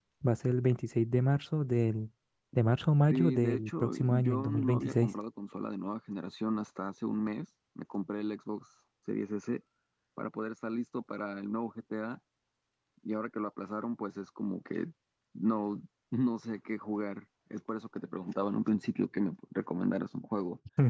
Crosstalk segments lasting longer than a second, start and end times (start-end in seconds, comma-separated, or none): 3.1-5.1